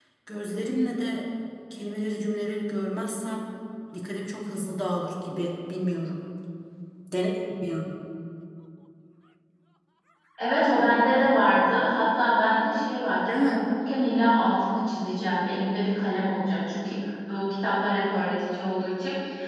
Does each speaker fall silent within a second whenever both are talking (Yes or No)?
Yes